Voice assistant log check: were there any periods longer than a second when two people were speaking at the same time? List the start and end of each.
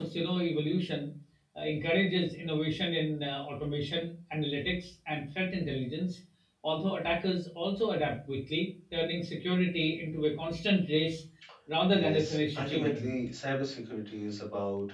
11.9-13.1

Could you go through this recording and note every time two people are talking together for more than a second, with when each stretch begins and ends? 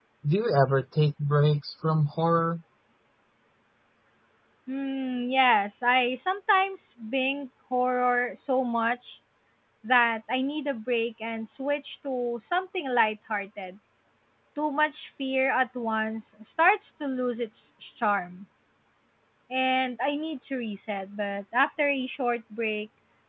none

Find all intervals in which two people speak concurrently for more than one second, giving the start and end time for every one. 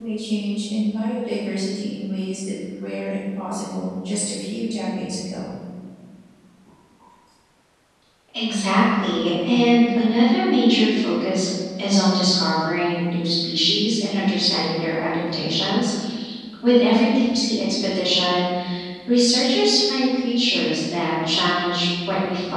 none

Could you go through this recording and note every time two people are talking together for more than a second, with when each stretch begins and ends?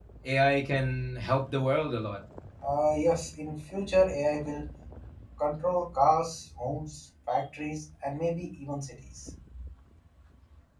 none

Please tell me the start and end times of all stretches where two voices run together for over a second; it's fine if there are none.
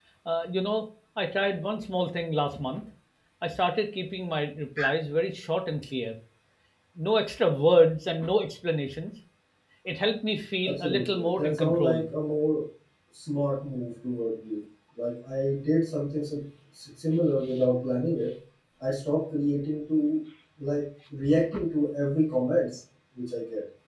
10.7-12.1

